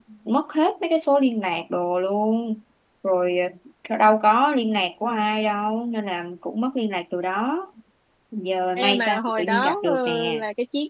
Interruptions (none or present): present